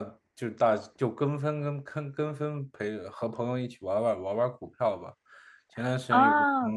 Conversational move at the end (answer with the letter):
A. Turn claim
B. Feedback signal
B